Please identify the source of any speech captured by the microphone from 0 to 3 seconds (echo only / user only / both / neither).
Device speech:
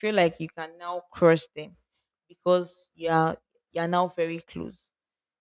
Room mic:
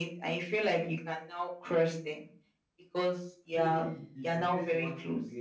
echo only